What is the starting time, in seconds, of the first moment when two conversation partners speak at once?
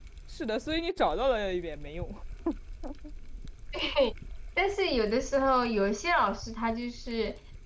none

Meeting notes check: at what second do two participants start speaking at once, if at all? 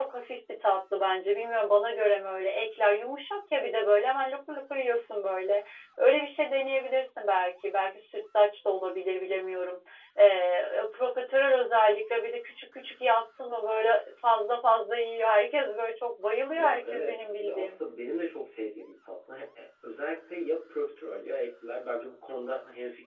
17 s

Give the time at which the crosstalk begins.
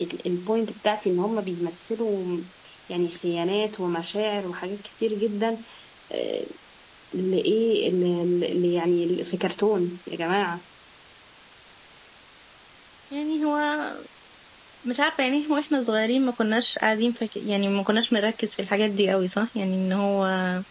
none

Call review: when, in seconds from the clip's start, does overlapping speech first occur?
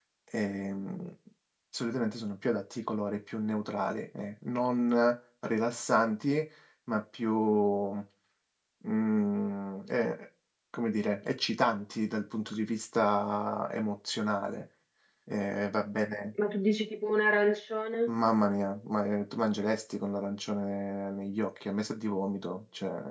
none

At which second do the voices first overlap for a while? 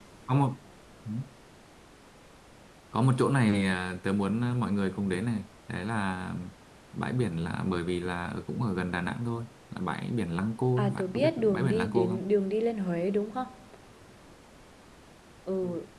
11 s

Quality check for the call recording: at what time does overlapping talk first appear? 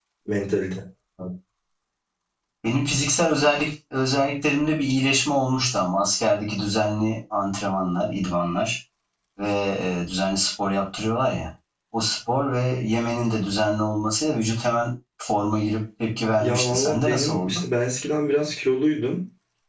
16 s

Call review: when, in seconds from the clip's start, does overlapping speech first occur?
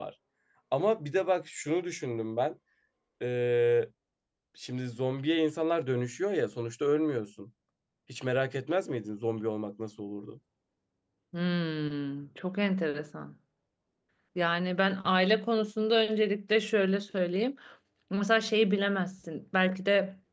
none

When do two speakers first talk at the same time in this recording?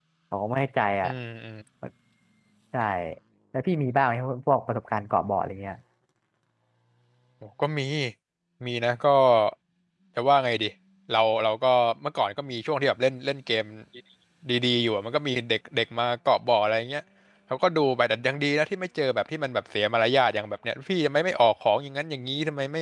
none

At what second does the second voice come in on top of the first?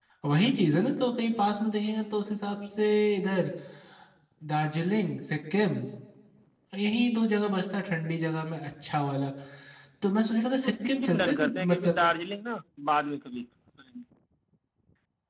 11 s

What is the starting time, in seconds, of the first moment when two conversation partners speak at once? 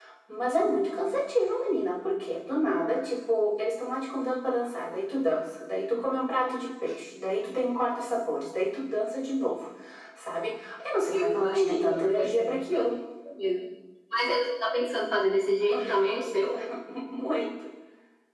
11 s

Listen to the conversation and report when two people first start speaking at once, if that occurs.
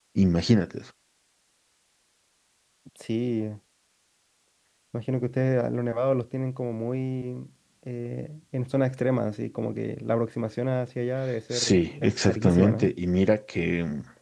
12 s

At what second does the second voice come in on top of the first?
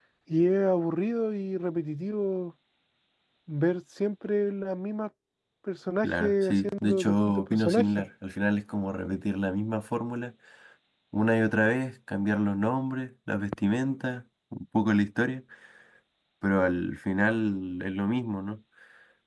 6 s

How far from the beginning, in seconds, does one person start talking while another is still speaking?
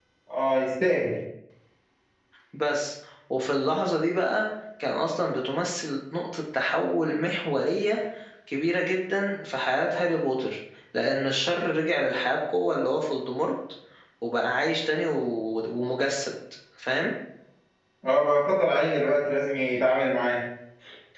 none

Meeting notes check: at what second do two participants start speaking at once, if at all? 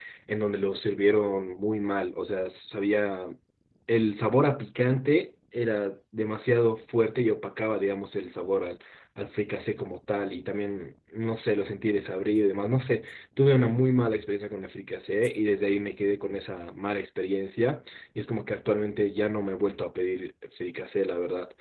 none

